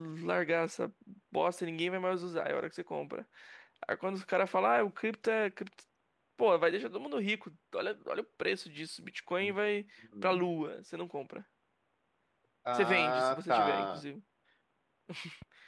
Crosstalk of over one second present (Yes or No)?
Yes